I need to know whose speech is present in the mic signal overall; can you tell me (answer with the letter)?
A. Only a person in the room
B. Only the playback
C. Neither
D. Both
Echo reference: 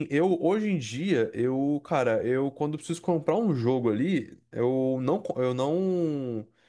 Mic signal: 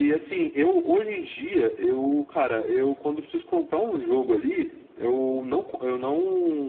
B